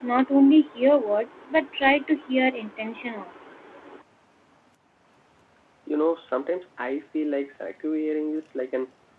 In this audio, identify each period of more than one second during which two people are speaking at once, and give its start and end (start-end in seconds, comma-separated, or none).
none